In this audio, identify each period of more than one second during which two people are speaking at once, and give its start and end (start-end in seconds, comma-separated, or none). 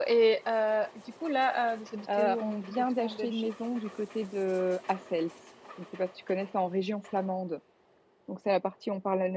2.2-3.5